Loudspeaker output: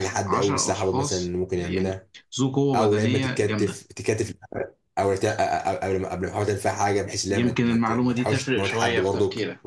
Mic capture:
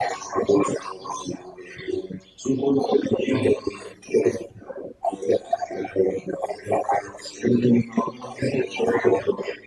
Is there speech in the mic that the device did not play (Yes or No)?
No